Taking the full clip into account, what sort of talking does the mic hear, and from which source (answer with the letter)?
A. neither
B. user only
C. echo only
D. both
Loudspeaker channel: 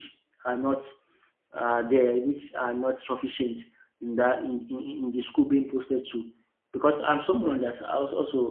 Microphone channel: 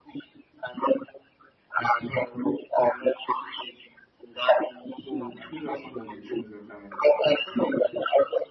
D